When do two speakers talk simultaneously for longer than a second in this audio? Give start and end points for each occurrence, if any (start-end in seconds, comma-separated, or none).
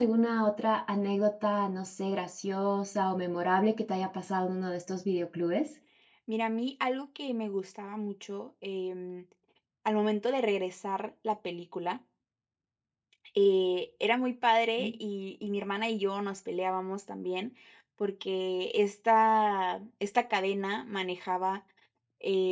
none